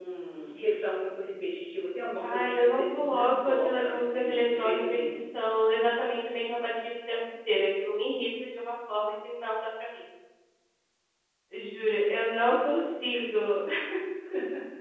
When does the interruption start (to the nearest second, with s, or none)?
2 s